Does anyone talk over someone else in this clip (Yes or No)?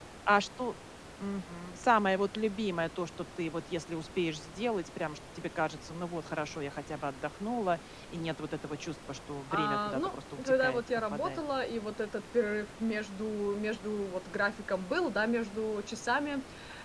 Yes